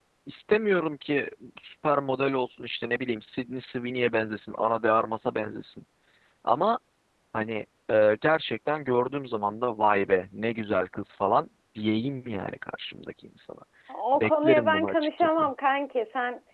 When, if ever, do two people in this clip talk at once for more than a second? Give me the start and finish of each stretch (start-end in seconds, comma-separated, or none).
14.2-15.4